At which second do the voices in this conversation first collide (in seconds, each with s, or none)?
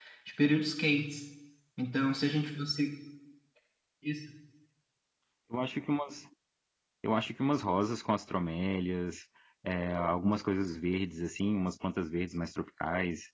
none